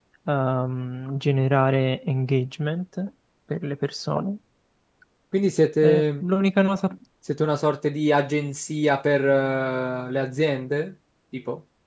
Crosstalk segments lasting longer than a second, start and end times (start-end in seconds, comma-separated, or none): none